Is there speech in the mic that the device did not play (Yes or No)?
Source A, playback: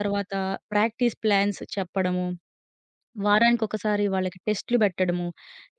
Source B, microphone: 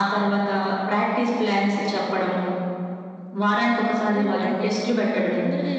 Yes